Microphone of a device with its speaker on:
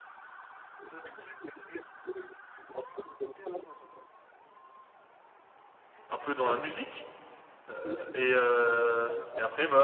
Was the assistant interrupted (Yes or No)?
Yes